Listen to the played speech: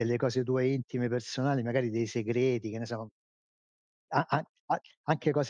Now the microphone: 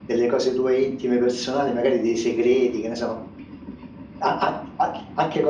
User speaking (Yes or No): No